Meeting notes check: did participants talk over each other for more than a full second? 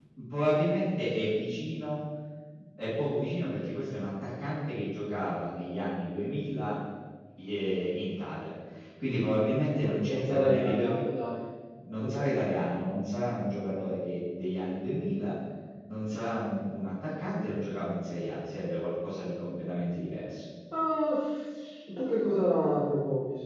Yes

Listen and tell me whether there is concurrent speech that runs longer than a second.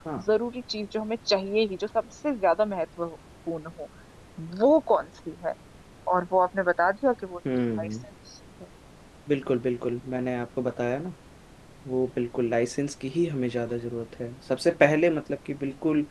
No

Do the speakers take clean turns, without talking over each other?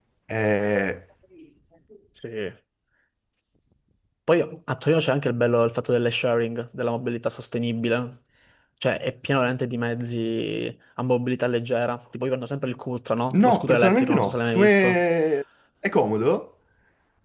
No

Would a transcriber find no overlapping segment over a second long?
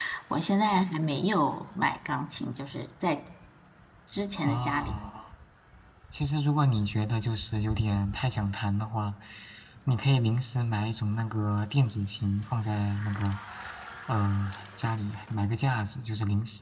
Yes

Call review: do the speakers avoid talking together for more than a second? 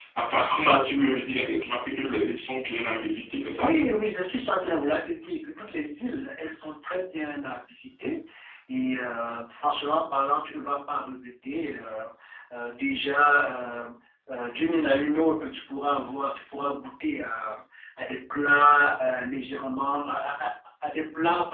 Yes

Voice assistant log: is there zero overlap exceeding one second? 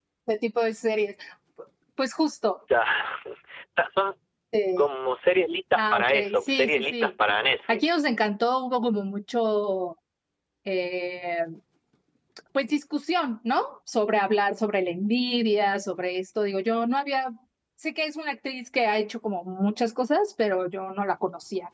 No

